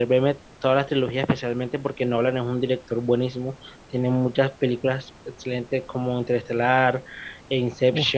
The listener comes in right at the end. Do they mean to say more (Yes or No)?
No